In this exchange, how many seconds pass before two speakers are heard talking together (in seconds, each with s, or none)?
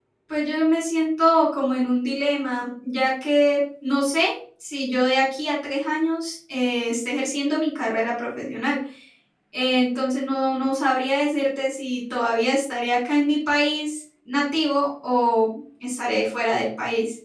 none